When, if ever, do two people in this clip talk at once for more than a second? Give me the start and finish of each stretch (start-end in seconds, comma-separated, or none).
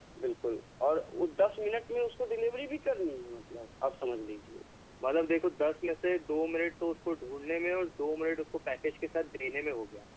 none